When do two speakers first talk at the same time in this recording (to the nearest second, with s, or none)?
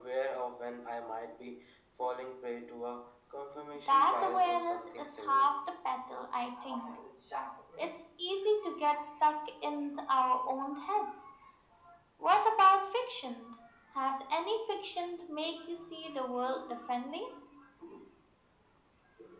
4 s